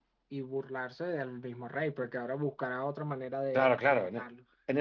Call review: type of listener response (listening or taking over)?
taking over